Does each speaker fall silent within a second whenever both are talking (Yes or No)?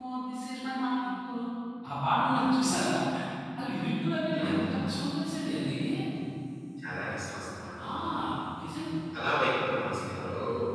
Yes